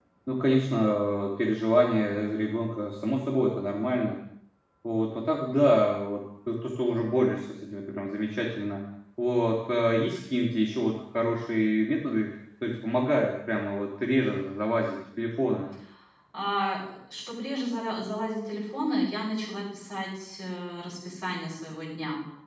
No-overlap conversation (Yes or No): Yes